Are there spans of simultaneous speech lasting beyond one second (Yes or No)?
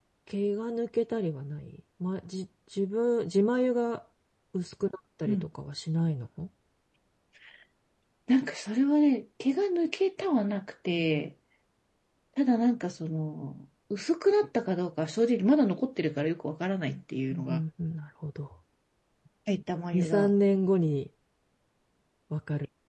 No